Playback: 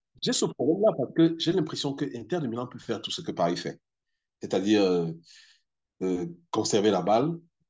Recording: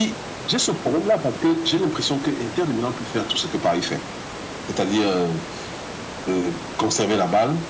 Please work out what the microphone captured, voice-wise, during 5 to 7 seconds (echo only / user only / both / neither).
echo only